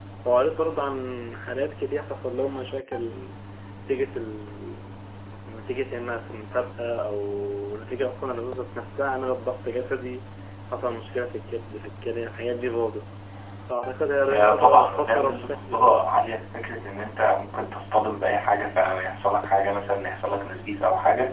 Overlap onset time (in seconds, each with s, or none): 14.3 s